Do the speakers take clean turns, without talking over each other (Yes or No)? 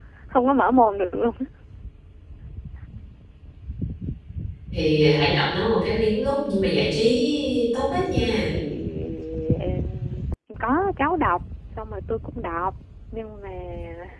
Yes